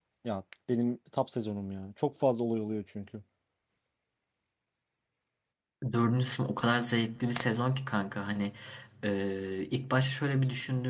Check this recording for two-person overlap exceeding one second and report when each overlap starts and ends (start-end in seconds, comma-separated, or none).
none